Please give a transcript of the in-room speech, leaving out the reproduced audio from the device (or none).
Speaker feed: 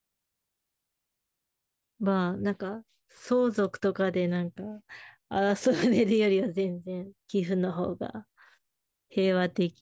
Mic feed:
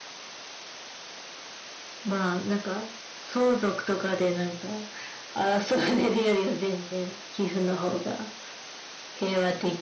none